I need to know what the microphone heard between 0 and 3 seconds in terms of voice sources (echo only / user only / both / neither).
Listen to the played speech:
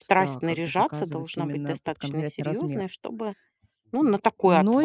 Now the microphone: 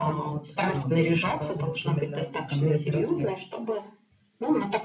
echo only